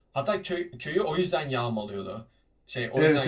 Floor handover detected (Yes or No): Yes